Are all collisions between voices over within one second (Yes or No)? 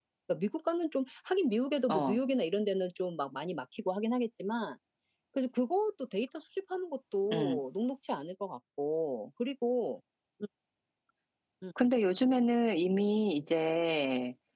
Yes